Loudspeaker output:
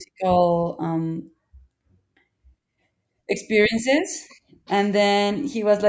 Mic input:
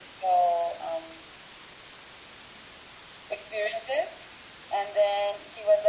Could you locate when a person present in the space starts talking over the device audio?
none

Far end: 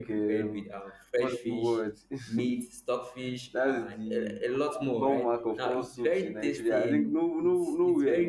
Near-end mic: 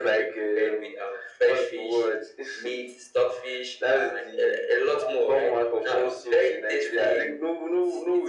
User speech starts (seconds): none

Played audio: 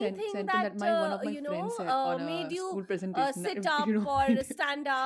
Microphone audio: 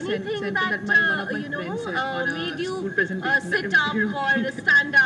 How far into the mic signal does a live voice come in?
none

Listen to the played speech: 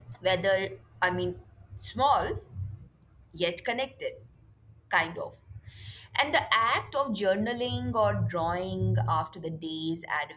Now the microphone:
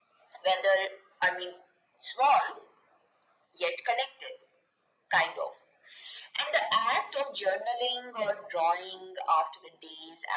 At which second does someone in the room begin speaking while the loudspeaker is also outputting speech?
none

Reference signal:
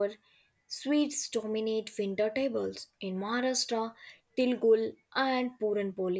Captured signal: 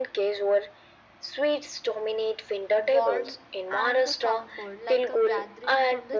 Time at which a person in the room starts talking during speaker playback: 3 s

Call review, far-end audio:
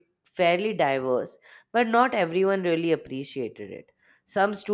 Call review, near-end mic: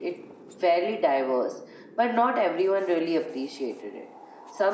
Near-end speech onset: none

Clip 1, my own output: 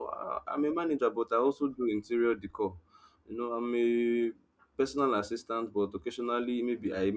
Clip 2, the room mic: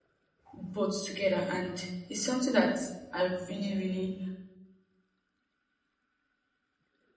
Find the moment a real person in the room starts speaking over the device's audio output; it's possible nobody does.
1 s

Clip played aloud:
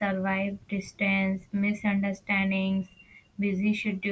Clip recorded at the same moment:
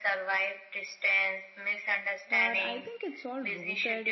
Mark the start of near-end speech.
2 s

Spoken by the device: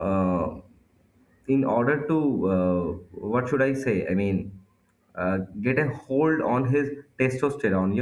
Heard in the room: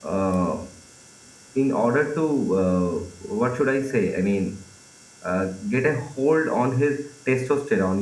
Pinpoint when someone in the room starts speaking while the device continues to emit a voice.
none

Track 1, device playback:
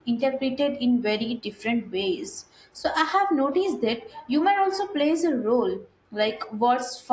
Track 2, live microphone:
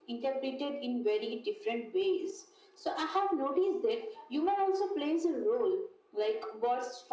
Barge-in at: none

